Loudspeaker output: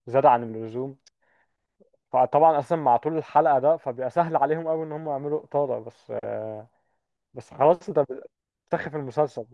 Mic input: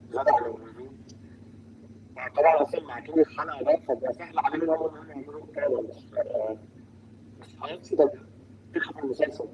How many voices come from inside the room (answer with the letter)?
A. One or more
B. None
B